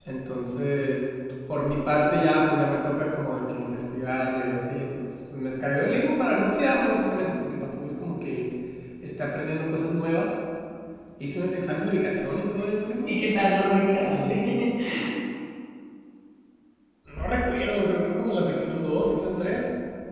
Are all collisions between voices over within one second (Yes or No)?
Yes